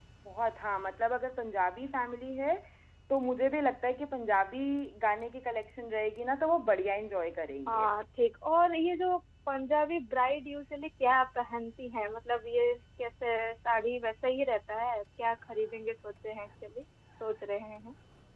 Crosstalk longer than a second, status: none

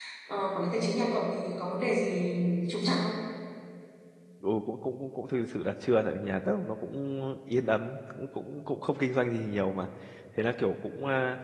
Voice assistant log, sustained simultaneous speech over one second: none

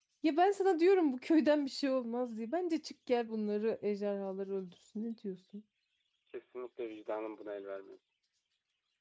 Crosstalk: none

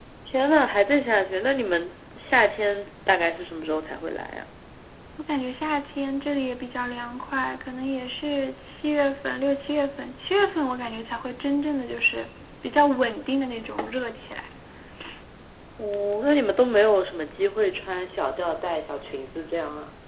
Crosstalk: none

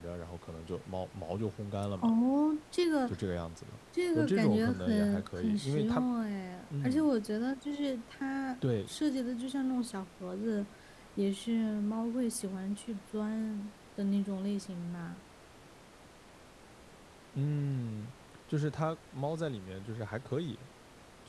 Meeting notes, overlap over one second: present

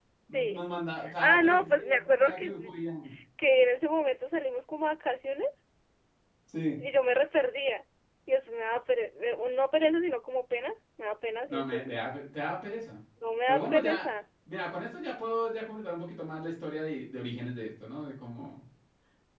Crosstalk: present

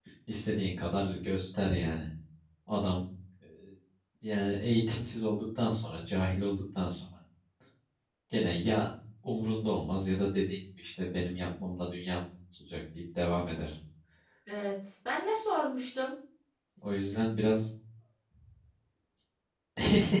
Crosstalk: none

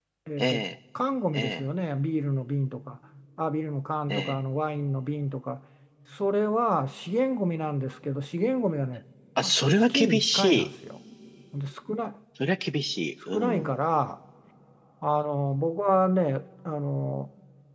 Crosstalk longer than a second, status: present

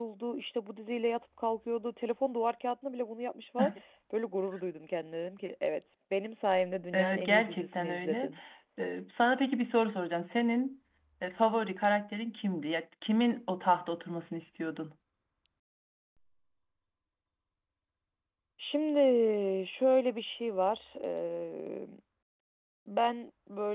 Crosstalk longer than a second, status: present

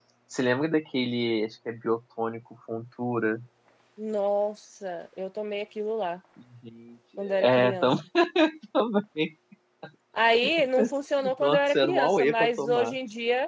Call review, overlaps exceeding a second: present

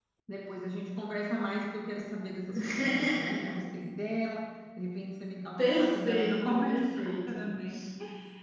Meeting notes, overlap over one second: present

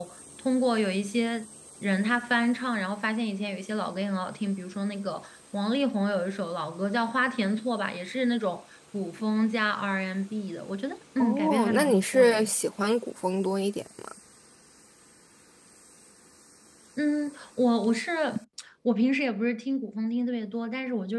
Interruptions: present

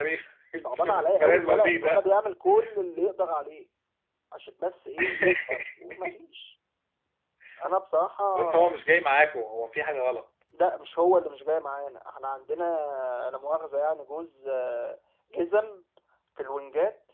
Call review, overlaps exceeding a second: present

